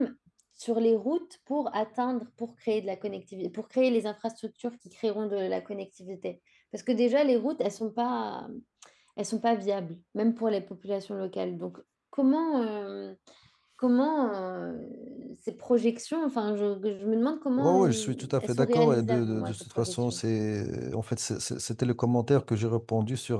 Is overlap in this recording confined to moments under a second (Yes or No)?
No